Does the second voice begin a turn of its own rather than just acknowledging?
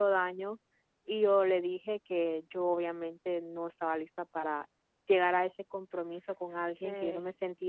No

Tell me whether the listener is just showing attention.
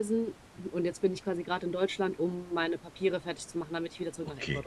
No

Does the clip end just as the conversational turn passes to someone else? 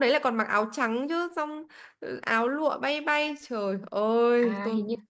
Yes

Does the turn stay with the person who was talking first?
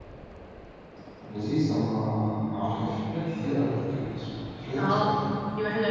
No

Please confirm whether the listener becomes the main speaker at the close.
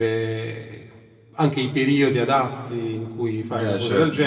Yes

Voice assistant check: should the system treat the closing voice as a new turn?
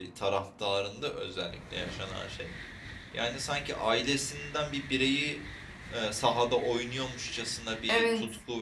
No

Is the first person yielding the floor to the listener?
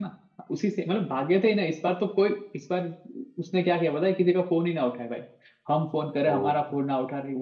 No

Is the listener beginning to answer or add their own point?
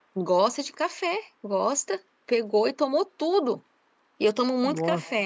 No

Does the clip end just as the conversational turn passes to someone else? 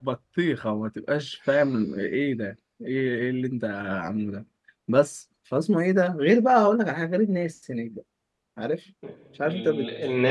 Yes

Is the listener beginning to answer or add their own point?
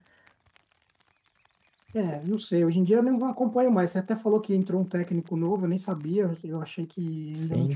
Yes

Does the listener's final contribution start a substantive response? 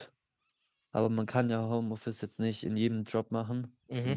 No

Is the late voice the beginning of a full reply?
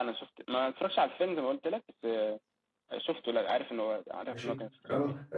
Yes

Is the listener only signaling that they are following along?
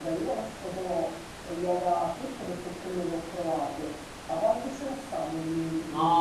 No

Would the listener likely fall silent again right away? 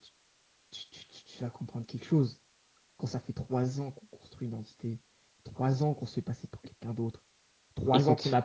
Yes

